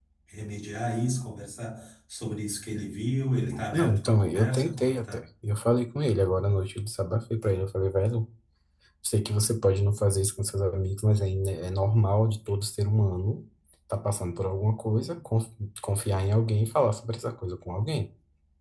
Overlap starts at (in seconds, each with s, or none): 3.7 s